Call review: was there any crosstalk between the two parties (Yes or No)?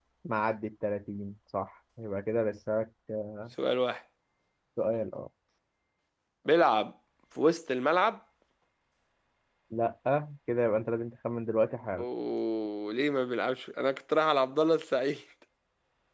No